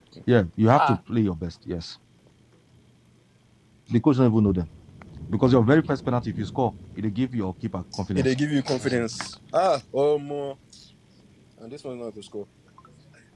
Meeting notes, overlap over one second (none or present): none